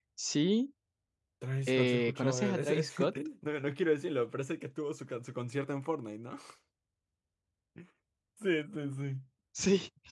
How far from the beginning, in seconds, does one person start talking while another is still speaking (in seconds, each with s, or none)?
1.7 s